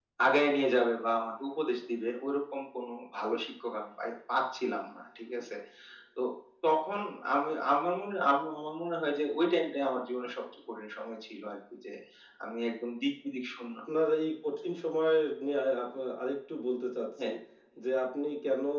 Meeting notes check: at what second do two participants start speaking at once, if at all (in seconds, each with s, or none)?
none